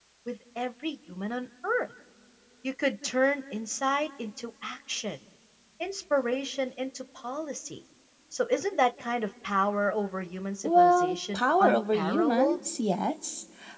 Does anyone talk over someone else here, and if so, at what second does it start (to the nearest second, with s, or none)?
11 s